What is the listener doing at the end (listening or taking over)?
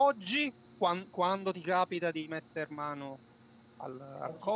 listening